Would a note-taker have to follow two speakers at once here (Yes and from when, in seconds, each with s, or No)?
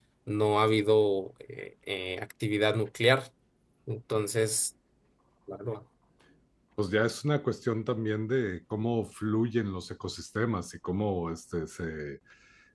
No